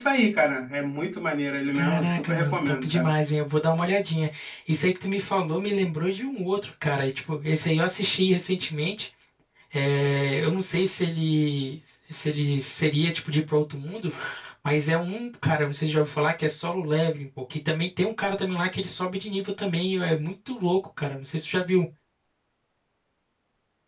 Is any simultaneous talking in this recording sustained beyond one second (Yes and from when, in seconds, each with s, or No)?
Yes, from 1.7 s